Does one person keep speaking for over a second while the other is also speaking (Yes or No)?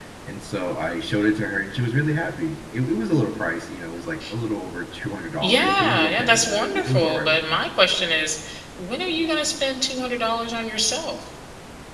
Yes